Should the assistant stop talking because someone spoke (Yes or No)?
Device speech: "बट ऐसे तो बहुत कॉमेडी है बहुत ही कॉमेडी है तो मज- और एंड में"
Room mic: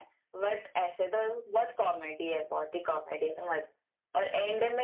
No